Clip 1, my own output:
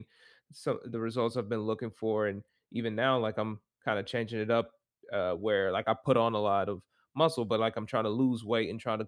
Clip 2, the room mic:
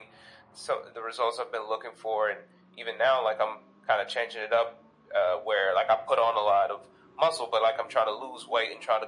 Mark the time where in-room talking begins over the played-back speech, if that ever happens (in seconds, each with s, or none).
none